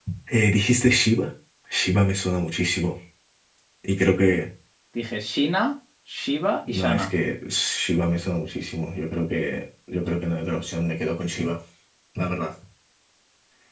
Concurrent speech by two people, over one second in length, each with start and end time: none

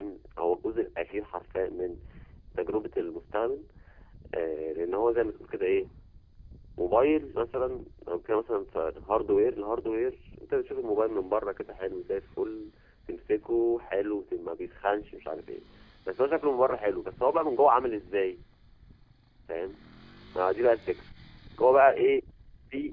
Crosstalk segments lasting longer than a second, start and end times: none

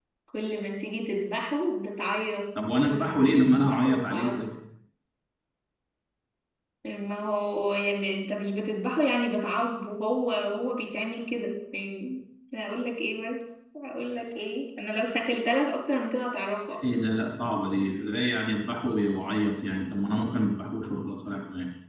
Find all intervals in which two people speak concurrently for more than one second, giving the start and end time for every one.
2.8-4.4

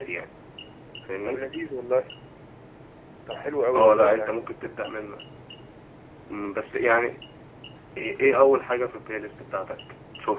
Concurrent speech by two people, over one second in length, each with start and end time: none

